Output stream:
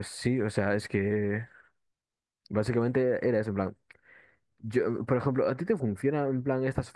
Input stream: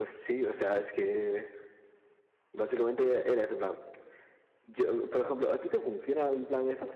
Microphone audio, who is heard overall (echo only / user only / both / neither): echo only